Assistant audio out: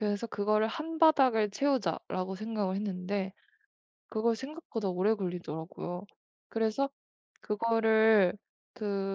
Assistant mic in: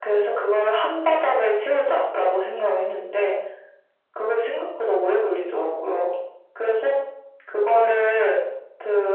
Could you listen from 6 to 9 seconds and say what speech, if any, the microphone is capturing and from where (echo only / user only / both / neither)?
echo only